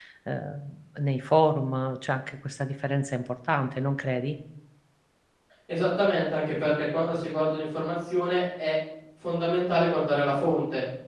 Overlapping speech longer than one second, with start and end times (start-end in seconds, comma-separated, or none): none